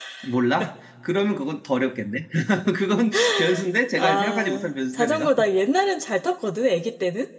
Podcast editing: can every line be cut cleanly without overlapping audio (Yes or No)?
No